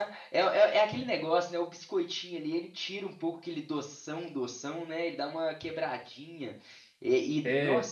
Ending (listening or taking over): listening